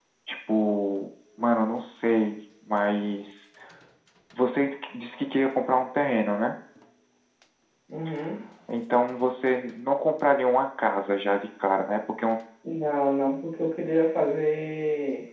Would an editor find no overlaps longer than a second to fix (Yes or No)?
Yes